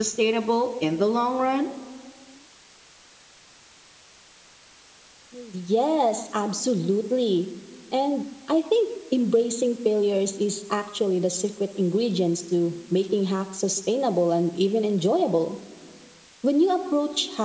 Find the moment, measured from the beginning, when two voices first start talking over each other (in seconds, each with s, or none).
none